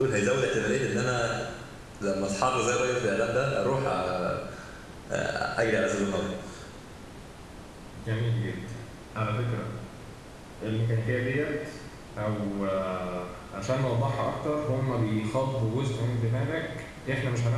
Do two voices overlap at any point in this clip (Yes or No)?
No